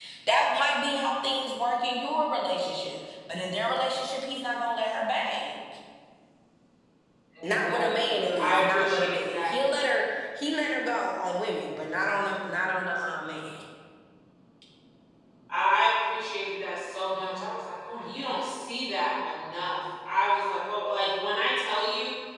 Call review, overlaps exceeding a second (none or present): present